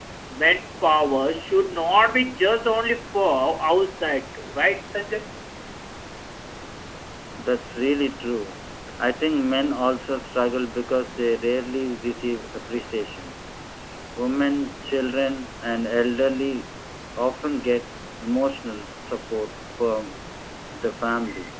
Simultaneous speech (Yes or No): No